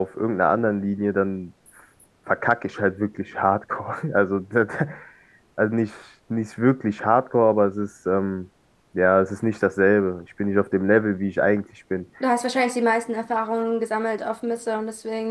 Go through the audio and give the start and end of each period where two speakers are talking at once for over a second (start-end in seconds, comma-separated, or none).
none